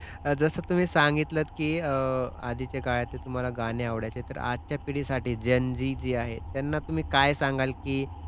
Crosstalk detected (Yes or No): No